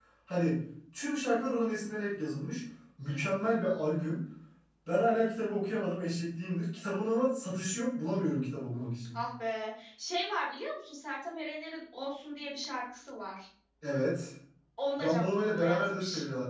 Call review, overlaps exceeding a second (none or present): present